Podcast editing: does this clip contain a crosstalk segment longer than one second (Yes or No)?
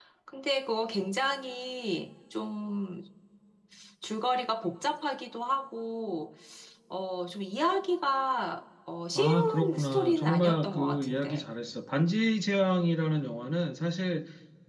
Yes